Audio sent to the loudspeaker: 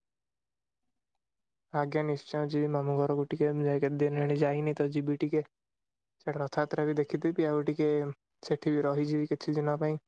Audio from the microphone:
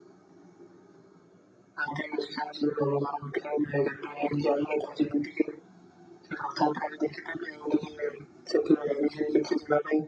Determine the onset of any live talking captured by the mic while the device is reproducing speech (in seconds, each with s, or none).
none